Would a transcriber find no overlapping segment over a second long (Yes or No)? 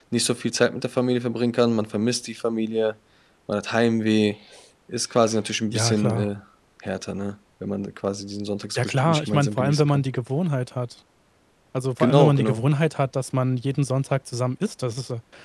No